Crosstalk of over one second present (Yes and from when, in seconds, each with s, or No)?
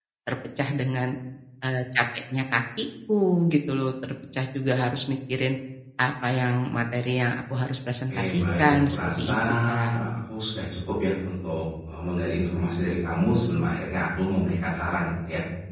Yes, from 8.1 s